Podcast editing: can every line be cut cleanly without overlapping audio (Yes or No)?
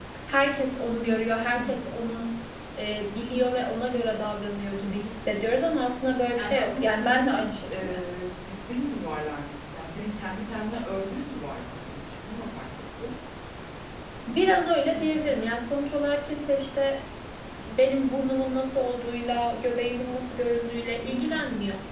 No